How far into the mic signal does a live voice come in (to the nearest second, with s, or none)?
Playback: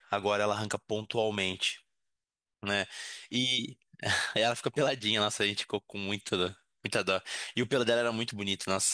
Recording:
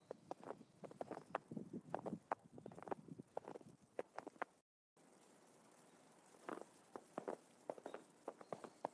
none